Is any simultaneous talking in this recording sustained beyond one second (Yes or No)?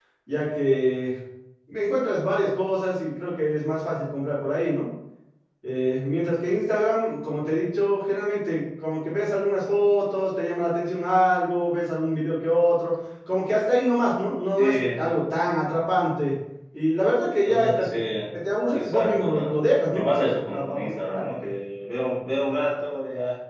Yes